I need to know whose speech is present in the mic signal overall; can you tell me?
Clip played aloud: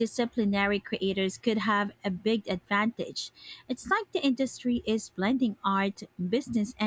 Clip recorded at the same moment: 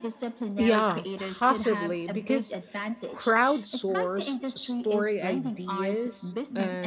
both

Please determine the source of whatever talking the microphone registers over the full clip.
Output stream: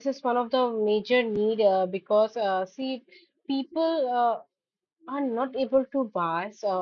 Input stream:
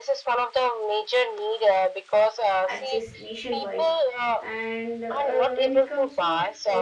both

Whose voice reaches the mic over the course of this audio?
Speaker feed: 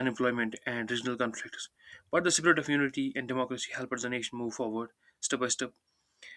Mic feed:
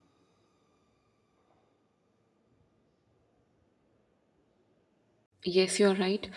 user only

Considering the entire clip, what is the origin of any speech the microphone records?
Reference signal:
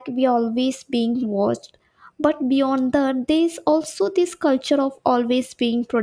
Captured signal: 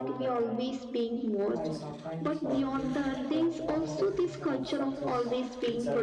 both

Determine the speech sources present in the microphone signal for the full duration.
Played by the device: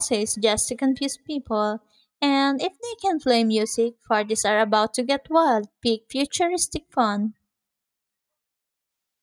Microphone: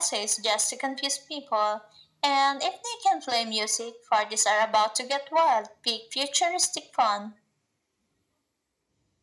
echo only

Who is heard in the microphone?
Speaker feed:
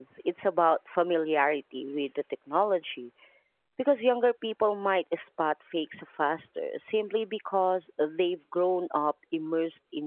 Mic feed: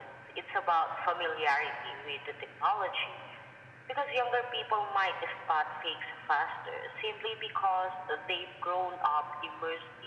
echo only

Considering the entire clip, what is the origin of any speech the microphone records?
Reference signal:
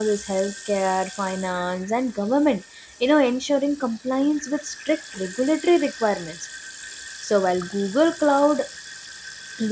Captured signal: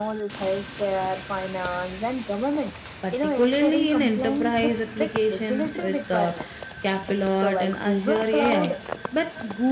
both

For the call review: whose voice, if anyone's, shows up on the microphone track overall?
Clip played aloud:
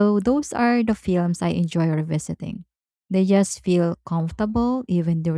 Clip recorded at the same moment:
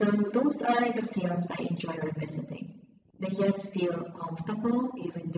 echo only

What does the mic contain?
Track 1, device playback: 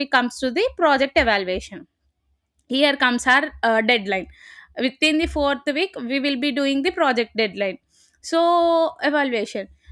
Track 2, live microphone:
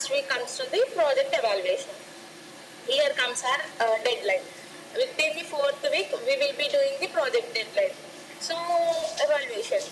echo only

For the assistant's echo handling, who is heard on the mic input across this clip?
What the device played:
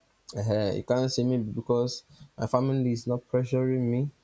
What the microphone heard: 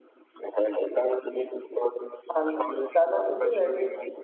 both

